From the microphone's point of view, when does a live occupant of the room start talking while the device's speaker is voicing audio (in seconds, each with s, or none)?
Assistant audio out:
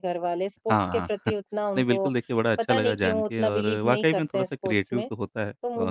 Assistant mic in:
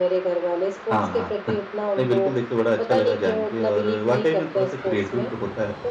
none